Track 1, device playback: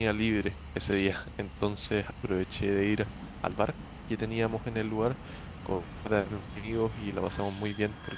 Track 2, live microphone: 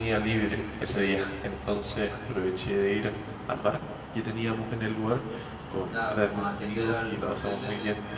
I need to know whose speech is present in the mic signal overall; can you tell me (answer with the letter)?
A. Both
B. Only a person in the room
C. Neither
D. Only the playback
A